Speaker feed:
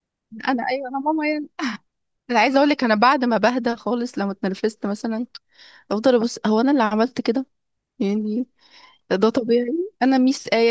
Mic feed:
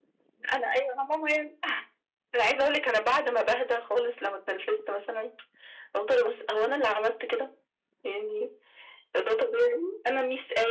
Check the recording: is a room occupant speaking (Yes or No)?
No